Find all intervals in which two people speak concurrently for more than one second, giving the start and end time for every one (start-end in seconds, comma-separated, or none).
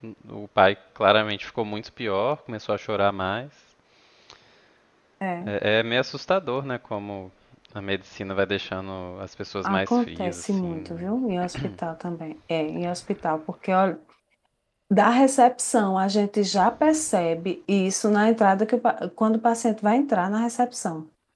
9.6-11.0